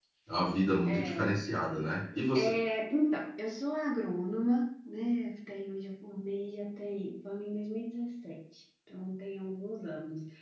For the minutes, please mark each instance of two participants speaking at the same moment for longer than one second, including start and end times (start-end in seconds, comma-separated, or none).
none